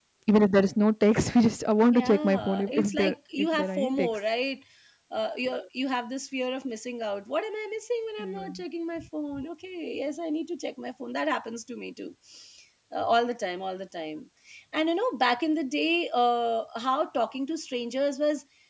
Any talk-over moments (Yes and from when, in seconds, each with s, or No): Yes, from 1.9 s